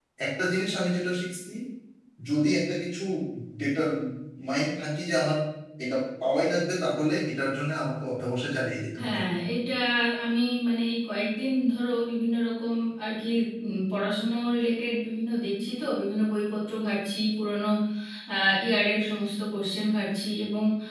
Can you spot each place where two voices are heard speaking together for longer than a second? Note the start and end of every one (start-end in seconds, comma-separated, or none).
none